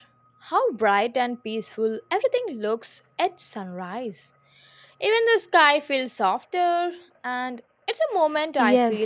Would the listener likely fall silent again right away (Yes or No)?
No